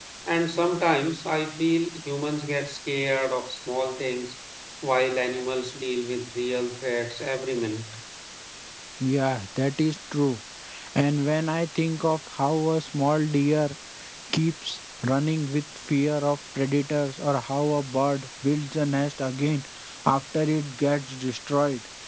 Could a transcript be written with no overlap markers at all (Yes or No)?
Yes